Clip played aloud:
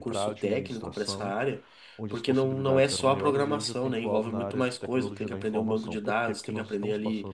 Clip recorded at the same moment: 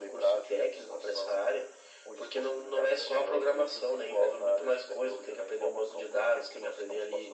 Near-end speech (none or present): none